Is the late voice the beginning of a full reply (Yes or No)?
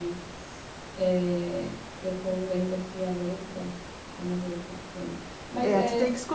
Yes